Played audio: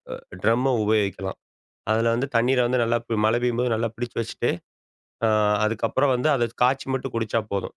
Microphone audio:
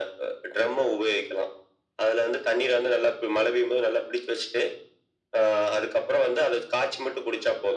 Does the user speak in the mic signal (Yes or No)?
No